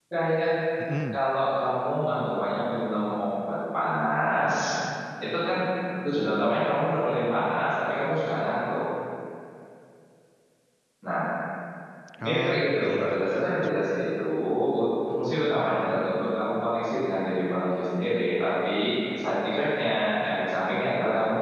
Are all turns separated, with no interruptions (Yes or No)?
No